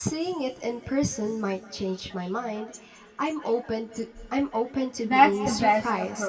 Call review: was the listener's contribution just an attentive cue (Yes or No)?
No